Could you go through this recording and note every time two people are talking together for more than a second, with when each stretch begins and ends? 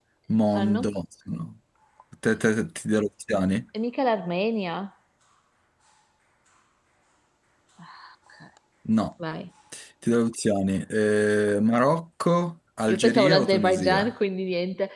12.9-14.1

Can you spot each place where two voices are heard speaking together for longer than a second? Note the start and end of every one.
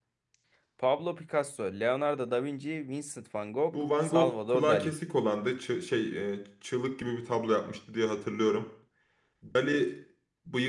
3.7-4.9

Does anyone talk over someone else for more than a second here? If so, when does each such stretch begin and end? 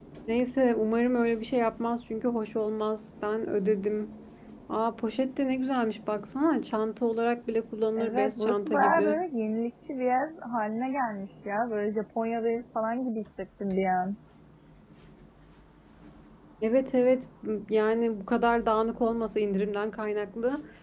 8.0-9.2

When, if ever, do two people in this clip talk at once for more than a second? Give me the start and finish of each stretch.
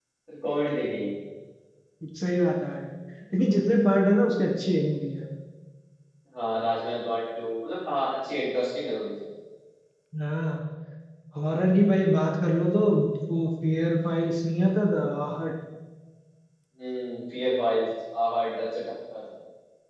none

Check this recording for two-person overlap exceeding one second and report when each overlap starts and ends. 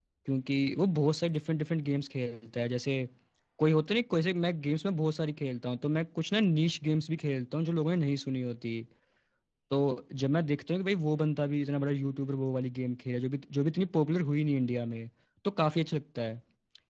none

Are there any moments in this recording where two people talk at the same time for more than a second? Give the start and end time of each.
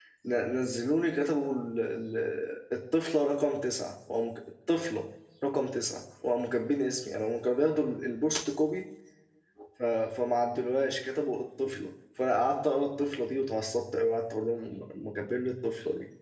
none

